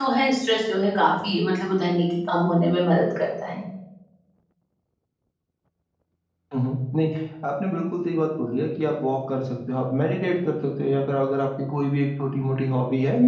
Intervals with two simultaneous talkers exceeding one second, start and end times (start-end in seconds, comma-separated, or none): none